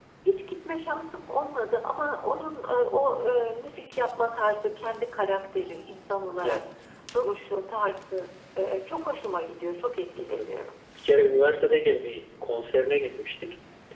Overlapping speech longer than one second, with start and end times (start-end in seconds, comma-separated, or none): none